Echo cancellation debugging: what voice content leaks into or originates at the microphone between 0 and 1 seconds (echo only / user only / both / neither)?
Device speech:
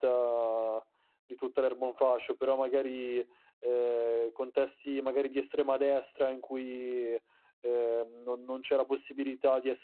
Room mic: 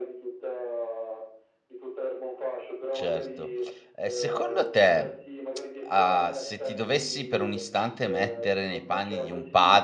echo only